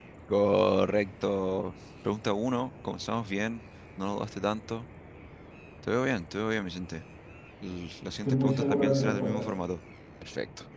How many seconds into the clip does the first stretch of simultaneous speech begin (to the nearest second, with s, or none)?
8 s